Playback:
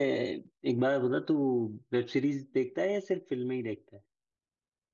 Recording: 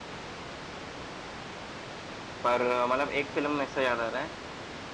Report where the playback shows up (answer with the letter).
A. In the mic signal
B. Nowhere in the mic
B